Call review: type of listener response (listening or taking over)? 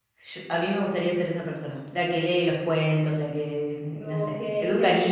taking over